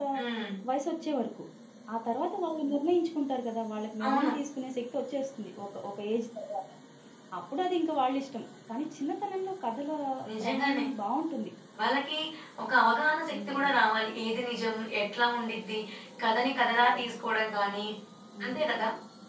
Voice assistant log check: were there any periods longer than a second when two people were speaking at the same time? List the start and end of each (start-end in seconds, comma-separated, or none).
none